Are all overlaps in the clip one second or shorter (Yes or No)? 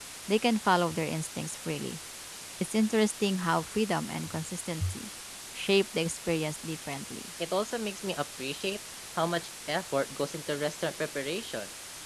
Yes